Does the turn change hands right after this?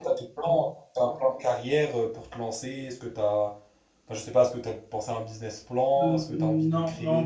Yes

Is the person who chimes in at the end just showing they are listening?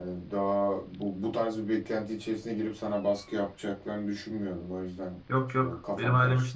No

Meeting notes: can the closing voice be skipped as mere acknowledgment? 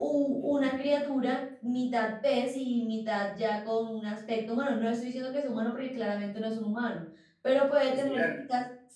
Yes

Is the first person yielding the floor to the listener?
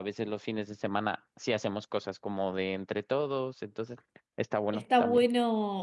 Yes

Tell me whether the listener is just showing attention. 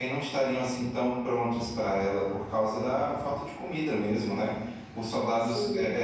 Yes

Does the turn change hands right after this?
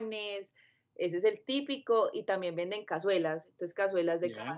No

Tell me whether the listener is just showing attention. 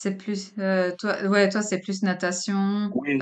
No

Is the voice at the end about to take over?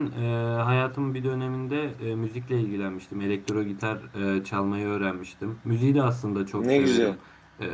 No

